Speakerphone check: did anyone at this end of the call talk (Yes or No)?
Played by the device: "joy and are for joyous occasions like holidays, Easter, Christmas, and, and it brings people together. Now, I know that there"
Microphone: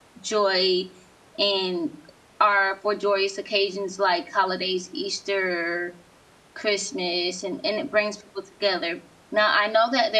No